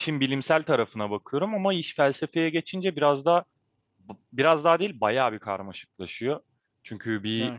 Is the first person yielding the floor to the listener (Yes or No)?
No